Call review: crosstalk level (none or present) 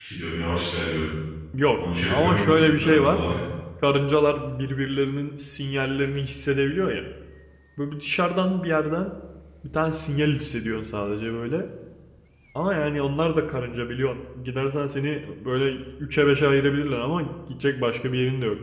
present